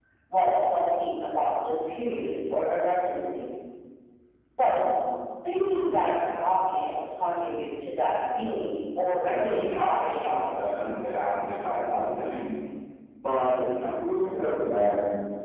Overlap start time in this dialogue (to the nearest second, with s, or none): 9 s